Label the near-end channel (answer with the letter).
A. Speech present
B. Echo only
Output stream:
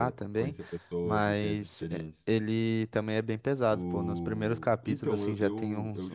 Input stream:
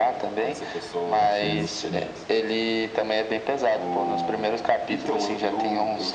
A